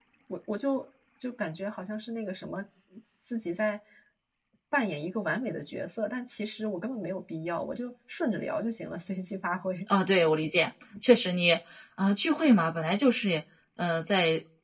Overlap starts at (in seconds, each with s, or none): none